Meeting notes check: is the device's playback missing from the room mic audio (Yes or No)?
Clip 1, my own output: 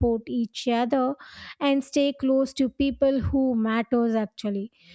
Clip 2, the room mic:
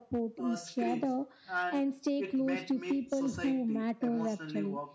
No